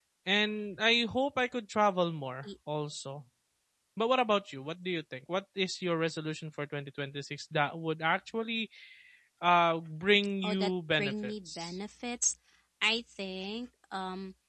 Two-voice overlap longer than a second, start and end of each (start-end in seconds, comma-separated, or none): 10.4-11.8